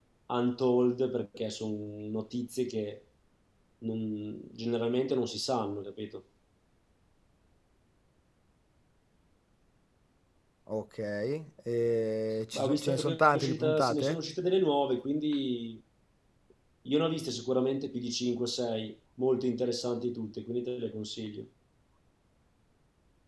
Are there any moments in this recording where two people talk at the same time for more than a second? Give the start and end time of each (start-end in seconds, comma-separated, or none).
12.5-14.2